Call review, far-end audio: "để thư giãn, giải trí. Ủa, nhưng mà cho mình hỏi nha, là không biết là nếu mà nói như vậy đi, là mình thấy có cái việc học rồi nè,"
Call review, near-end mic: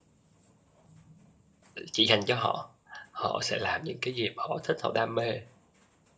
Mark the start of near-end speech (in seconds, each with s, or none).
1.7 s